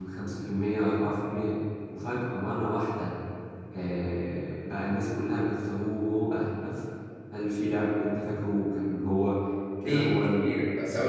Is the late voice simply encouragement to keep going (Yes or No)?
No